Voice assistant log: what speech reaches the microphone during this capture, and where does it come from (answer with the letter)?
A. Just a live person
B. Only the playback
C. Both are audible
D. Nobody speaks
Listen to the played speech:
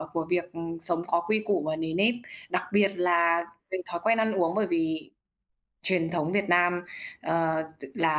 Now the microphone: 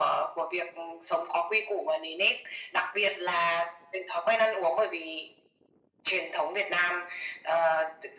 B